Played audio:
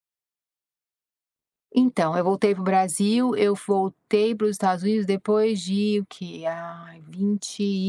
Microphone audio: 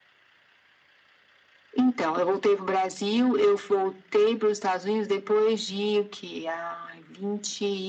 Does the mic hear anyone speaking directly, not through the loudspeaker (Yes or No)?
No